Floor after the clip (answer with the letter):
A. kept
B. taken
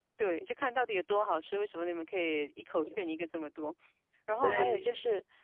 A